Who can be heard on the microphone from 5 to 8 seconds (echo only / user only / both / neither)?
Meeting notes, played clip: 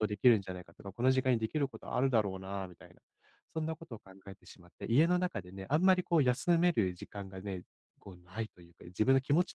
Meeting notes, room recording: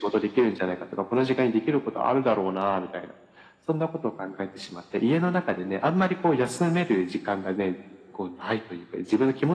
echo only